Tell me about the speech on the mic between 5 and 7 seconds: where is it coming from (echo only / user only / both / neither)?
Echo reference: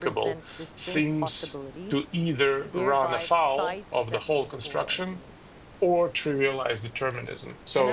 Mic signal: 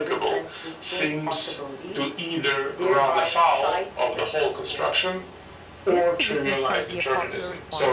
both